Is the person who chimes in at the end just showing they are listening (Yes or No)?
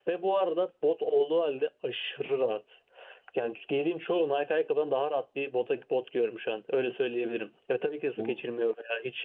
Yes